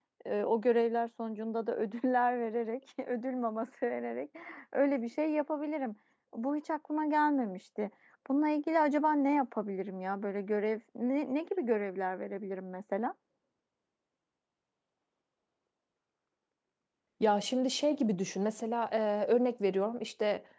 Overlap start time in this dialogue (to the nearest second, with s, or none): none